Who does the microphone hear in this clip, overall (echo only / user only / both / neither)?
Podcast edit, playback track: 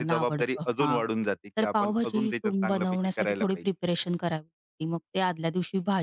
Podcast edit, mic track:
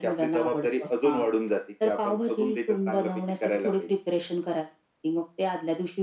echo only